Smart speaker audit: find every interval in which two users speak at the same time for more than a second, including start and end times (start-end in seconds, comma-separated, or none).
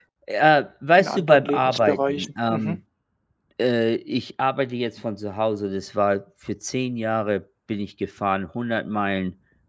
1.0-2.8